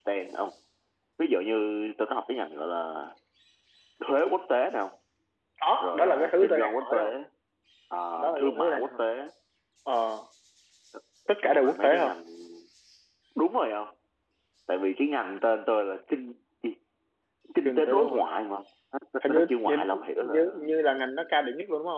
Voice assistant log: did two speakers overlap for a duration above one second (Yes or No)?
Yes